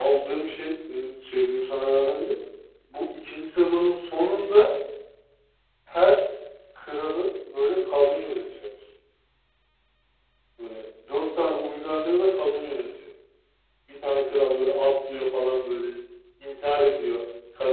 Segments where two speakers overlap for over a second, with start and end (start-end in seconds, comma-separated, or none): none